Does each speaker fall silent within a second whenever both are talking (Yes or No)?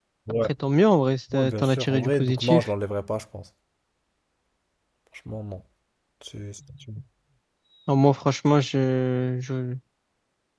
No